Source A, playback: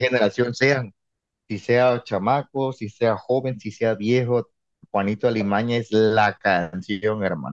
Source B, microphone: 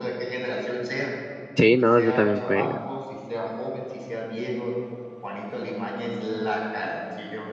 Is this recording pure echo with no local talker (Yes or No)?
No